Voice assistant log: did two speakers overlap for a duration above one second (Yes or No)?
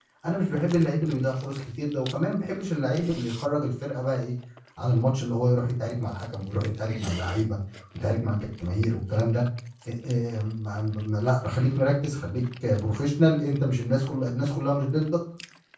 No